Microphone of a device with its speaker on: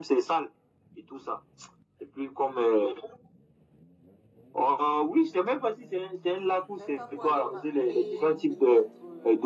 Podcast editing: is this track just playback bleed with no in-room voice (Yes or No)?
No